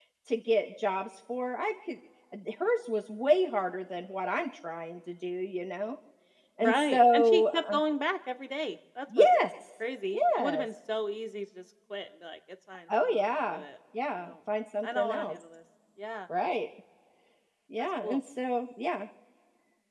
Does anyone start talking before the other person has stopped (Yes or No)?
Yes